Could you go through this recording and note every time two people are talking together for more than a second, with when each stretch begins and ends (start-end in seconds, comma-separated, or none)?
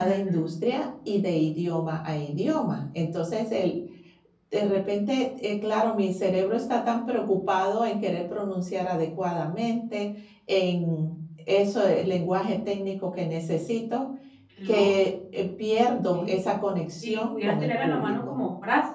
17.0-18.3